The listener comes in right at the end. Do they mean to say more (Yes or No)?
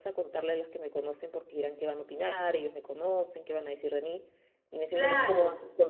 No